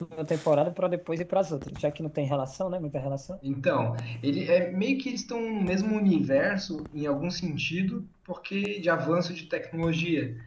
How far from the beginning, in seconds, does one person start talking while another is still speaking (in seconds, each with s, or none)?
none